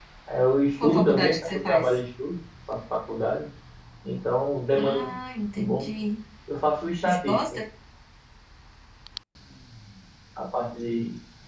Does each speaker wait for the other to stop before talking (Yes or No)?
No